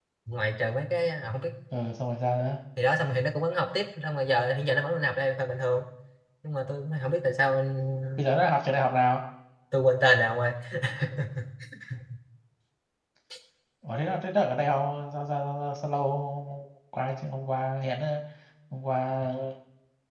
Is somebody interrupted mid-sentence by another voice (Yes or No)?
No